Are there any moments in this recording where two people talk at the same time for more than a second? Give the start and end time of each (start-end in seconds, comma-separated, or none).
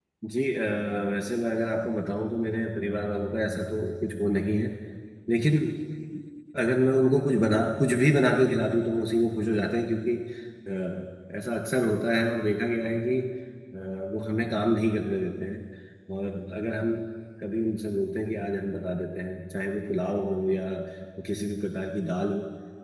none